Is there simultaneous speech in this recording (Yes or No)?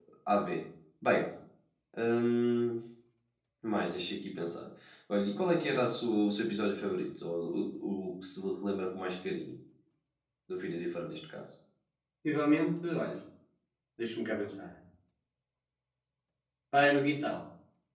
No